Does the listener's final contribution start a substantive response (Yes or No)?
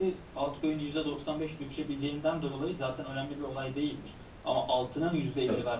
No